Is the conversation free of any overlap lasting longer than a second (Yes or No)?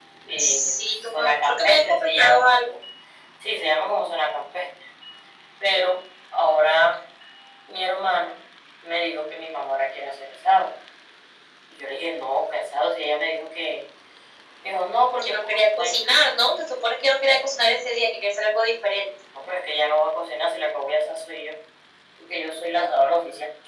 No